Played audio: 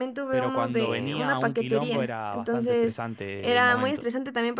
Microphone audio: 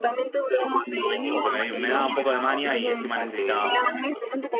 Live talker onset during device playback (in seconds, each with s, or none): 1.3 s